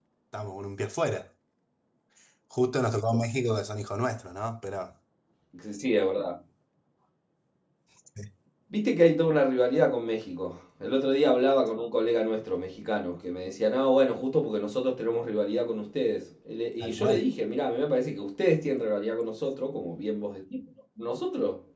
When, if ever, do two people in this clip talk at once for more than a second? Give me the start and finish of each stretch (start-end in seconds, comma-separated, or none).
none